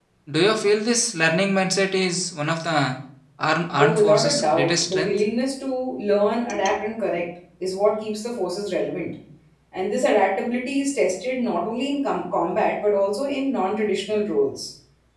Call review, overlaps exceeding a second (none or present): present